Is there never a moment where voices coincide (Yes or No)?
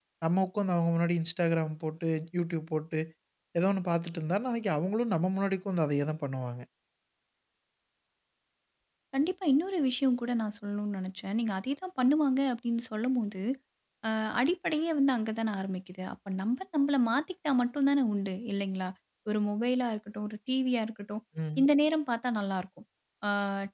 Yes